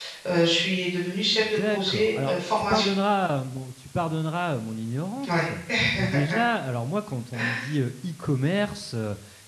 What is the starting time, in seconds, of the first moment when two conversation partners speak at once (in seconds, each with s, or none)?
1.6 s